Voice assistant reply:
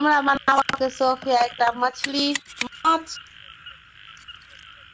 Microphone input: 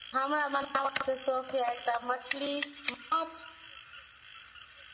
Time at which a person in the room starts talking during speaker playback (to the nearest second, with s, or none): none